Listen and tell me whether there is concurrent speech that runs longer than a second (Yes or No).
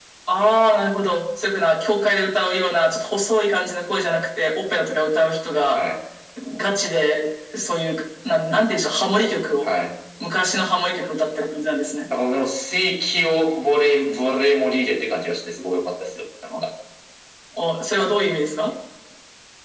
No